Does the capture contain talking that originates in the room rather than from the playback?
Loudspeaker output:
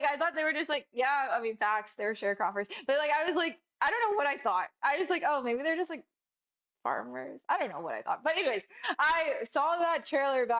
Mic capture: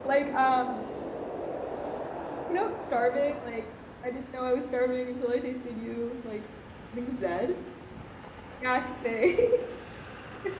Yes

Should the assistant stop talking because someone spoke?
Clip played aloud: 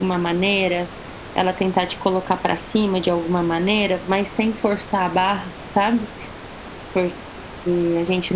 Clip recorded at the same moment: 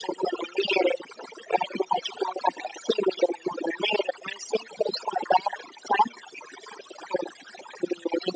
No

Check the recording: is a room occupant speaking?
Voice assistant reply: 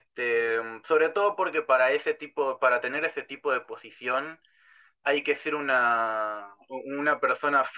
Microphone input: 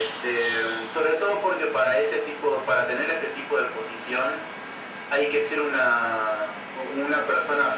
No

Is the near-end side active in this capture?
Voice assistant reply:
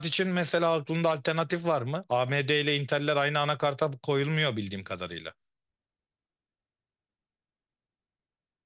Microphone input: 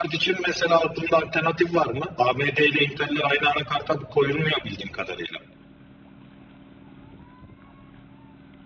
No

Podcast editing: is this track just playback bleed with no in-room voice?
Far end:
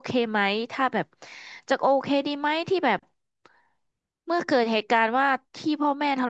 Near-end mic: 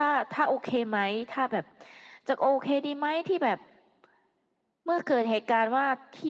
Yes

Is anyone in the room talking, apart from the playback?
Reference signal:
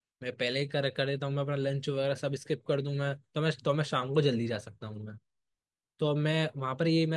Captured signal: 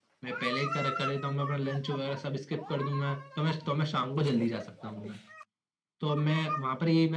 No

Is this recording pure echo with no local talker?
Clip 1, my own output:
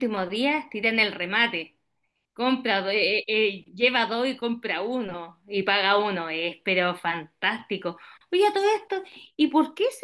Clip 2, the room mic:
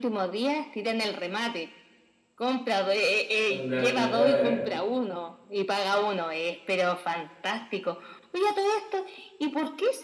No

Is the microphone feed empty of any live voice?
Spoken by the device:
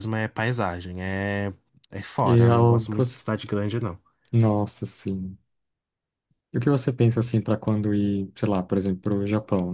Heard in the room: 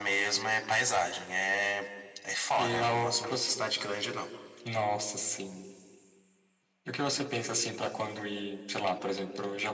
Yes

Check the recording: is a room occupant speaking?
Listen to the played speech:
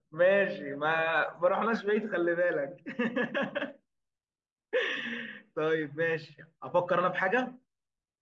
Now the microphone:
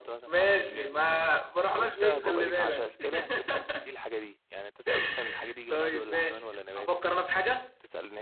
Yes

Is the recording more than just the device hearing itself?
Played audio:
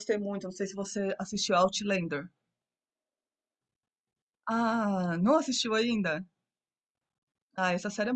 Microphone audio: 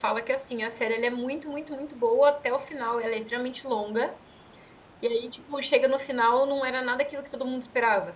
Yes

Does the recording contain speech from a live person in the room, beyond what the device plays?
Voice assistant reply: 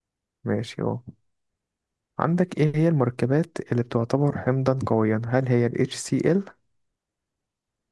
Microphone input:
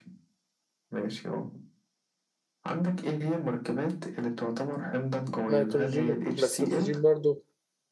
Yes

